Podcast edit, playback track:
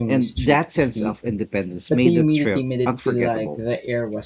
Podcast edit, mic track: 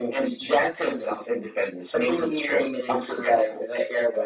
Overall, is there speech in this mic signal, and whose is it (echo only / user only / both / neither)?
echo only